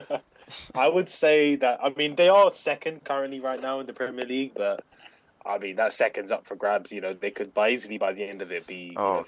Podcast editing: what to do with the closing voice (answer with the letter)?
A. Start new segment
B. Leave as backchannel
A